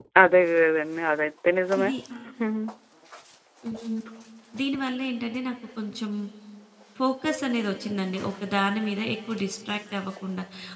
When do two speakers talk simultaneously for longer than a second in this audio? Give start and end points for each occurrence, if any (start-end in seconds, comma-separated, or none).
none